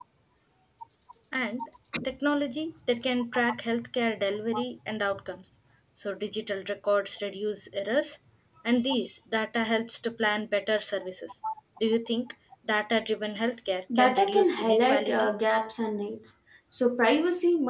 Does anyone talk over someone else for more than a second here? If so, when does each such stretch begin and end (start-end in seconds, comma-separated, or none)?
13.9-15.3